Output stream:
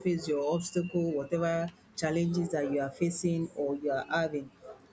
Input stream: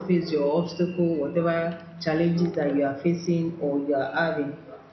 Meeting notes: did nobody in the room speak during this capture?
Yes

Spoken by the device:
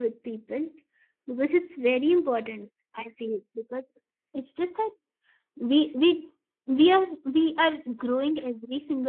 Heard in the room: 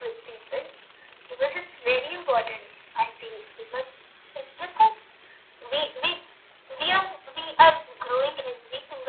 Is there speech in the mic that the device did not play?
No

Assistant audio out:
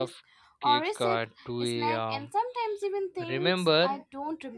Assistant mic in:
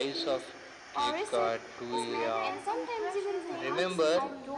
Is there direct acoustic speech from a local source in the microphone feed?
Yes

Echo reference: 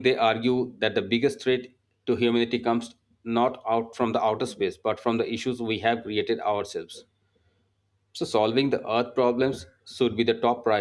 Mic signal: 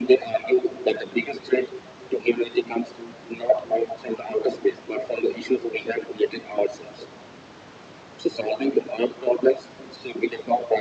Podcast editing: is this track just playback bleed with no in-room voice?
Yes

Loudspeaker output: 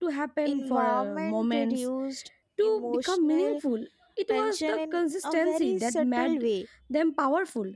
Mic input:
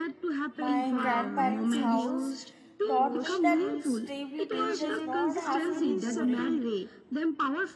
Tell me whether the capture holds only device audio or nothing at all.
No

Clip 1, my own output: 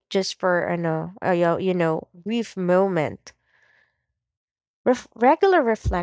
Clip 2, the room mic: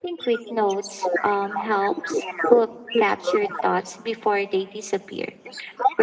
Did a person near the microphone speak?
Yes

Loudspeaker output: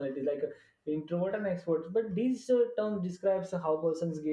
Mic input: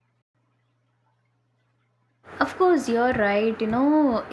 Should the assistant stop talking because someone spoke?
Yes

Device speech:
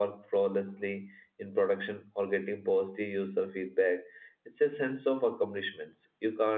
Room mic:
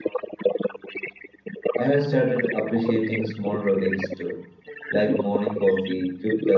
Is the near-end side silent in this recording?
No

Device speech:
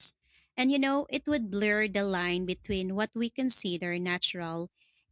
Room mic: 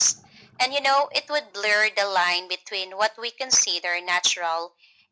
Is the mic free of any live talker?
Yes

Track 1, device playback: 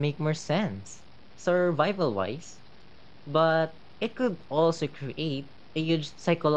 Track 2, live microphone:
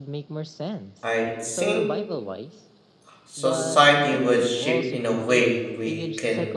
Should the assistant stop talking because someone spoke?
Yes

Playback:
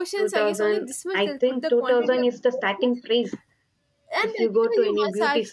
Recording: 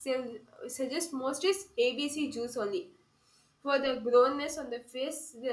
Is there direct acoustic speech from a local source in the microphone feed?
Yes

